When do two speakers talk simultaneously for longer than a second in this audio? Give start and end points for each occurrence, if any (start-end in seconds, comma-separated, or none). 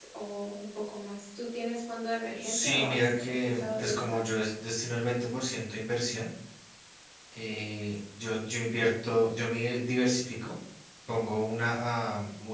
2.4-4.2